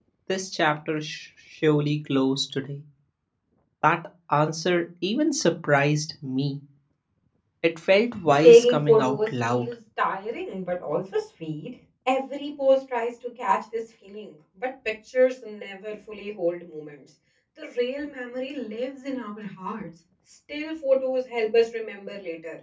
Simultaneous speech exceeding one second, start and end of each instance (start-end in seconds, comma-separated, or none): 8.4-9.7